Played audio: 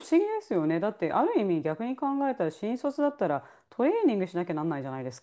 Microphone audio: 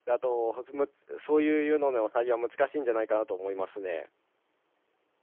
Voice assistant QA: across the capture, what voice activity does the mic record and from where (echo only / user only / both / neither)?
user only